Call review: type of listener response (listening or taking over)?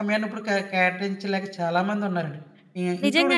taking over